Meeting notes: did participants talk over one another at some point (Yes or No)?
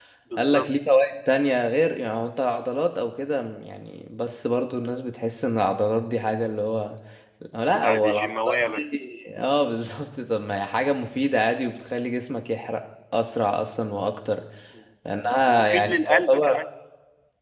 Yes